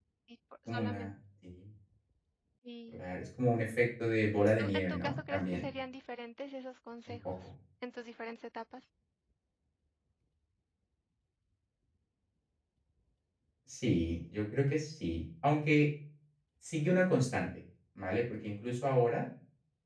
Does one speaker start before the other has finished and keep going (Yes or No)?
Yes